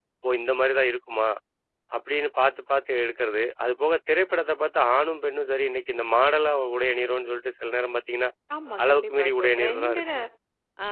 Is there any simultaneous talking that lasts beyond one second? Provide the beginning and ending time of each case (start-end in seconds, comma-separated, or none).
8.8-10.2